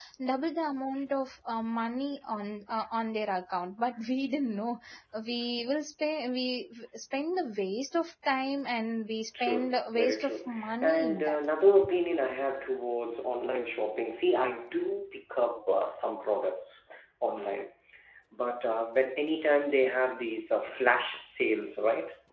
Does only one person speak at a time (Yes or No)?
No